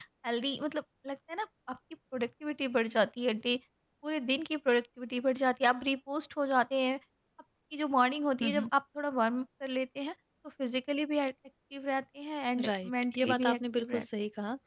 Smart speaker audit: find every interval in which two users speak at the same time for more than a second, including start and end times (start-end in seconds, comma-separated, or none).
12.7-14.0